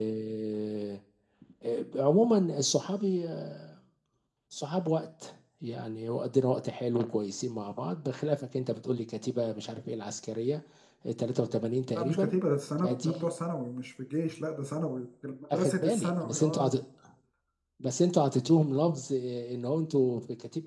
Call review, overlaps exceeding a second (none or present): present